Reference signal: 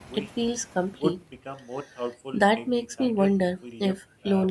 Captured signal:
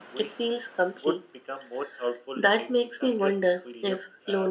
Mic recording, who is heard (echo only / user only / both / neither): echo only